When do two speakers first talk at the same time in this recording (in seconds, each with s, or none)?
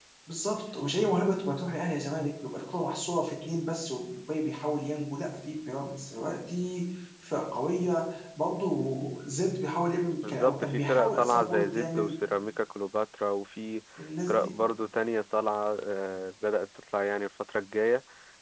10.2 s